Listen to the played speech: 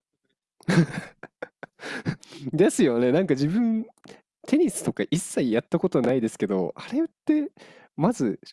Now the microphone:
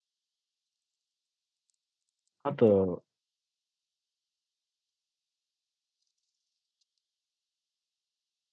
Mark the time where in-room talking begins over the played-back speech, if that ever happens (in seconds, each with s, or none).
2.4 s